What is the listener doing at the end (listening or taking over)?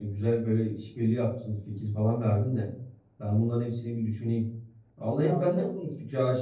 listening